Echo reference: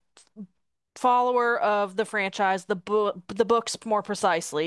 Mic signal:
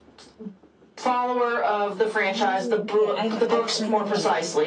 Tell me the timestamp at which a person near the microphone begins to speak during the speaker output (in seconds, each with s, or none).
2.3 s